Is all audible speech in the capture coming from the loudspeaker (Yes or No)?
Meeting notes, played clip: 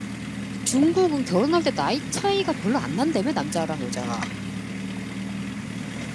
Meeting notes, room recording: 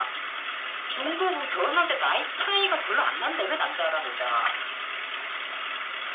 Yes